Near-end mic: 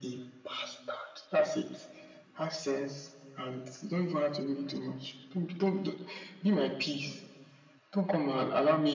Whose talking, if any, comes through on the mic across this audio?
echo only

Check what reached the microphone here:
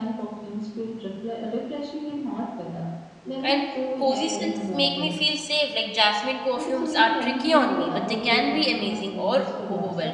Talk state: both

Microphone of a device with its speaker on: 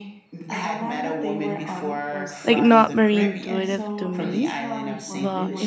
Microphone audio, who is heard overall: both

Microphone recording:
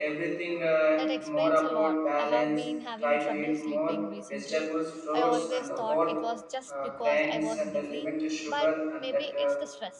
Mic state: both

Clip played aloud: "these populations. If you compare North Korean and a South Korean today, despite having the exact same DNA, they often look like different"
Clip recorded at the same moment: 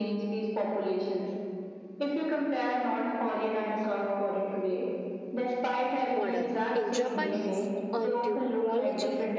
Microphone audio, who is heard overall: both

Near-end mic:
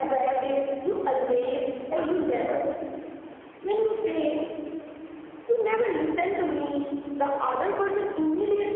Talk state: echo only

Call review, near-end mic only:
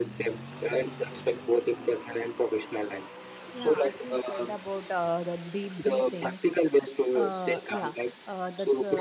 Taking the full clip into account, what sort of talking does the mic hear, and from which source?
both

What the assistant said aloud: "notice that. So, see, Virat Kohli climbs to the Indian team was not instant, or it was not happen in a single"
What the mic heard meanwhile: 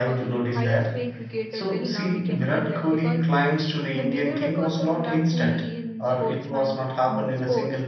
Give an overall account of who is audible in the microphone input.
both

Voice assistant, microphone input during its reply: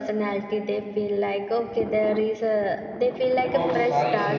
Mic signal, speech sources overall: both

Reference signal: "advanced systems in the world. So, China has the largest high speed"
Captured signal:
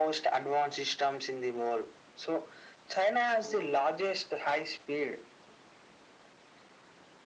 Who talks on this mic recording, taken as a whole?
both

